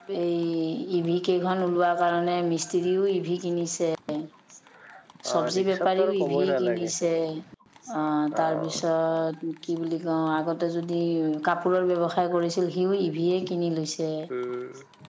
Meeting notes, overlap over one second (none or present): present